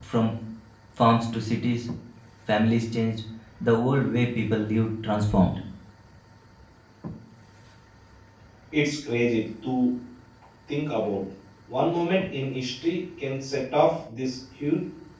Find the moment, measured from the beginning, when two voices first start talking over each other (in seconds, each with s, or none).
none